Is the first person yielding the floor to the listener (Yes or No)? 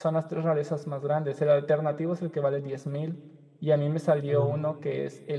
No